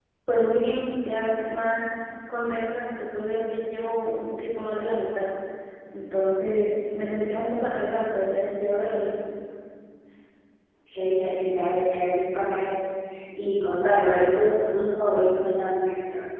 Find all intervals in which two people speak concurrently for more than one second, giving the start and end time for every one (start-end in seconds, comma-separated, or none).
none